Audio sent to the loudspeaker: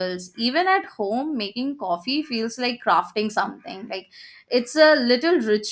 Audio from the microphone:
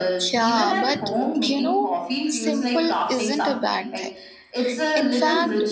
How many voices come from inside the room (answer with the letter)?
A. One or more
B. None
A